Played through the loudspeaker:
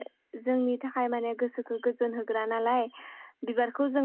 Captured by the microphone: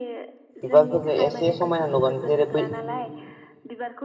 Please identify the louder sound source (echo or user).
user